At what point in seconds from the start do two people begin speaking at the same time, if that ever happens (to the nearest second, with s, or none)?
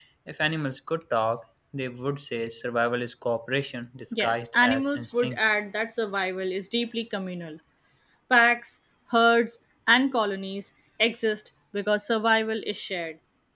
4 s